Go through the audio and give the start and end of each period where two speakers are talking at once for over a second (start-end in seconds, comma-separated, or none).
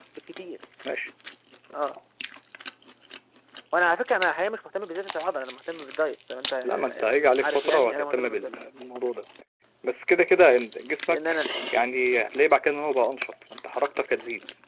6.6-8.5